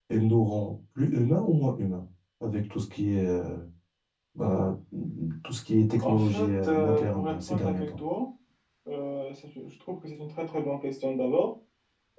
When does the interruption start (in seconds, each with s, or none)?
6.0 s